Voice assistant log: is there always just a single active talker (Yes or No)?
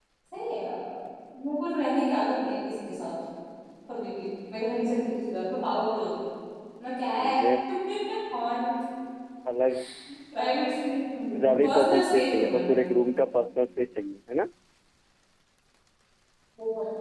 No